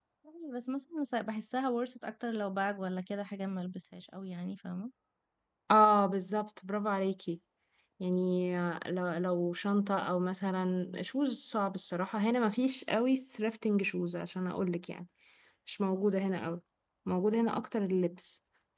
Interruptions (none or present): none